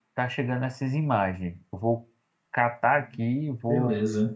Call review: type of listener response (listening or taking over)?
listening